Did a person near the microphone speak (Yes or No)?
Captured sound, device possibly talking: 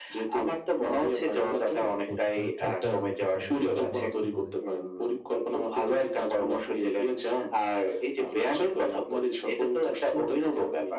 Yes